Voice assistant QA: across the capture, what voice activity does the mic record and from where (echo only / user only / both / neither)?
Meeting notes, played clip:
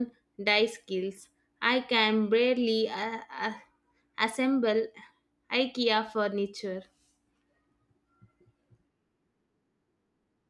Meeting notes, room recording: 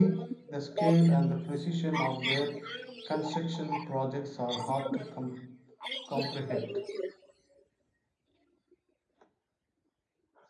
both